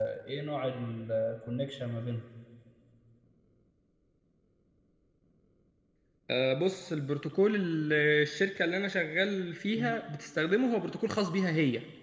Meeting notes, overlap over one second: none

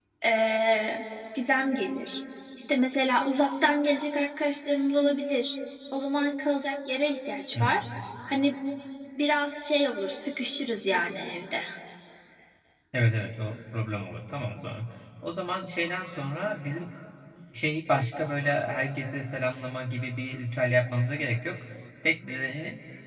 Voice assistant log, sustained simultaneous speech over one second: none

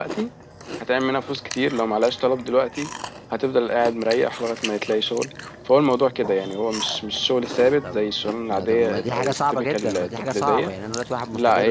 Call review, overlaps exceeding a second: present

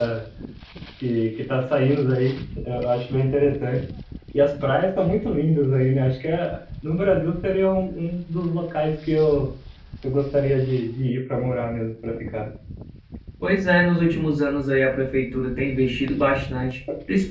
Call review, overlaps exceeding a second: none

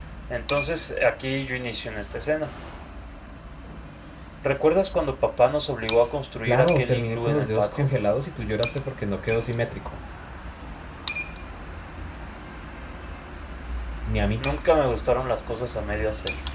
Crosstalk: present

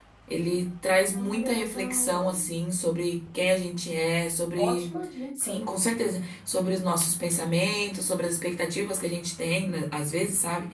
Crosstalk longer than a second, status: present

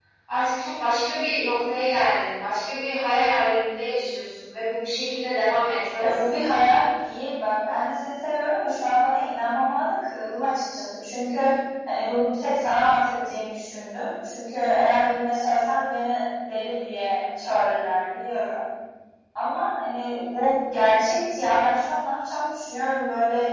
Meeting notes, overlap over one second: none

